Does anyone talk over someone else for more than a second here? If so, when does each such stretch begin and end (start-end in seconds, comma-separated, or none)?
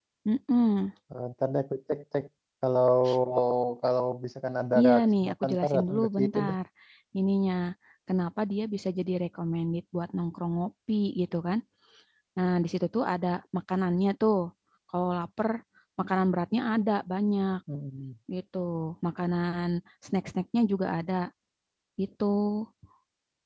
4.8-6.5